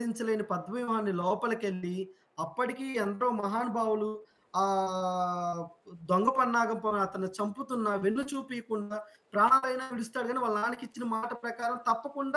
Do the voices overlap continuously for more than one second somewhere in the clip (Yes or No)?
No